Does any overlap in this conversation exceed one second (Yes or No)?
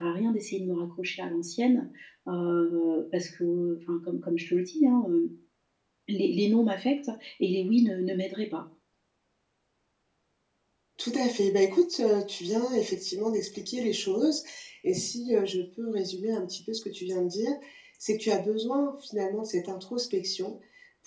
No